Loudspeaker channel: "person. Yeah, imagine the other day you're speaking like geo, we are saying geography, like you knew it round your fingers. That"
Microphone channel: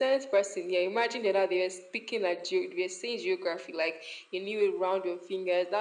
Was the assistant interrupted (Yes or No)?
No